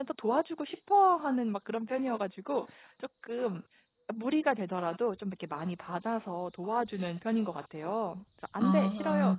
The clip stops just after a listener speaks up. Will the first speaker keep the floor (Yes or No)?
Yes